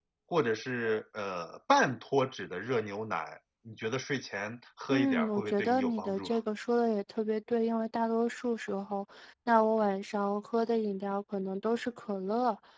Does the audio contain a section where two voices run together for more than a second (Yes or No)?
Yes